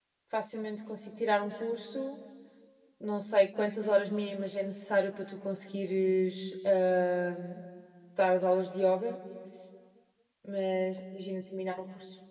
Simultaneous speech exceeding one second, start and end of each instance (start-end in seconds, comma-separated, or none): none